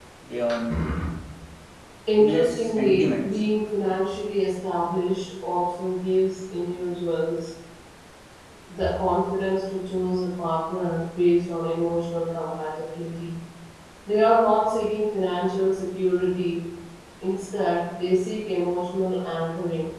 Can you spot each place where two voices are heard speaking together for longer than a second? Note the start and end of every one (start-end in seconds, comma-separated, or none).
2.2-3.4